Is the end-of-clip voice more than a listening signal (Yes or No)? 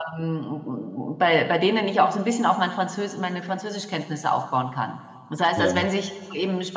No